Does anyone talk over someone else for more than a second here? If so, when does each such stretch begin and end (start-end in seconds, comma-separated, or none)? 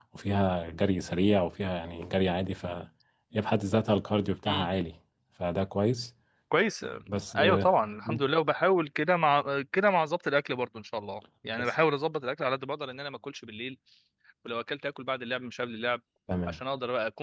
none